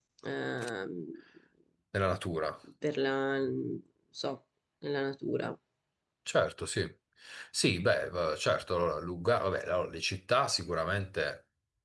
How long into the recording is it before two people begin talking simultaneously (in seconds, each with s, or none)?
none